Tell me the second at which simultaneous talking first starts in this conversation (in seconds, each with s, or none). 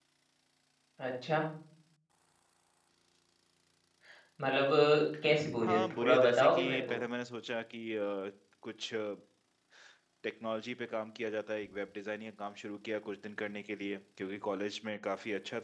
5.6 s